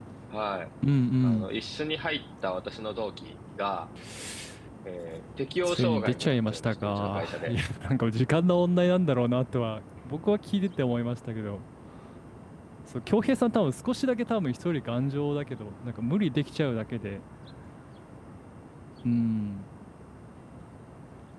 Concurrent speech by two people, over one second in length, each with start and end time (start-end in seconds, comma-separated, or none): 5.6-7.5